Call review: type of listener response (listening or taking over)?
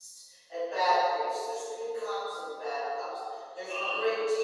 listening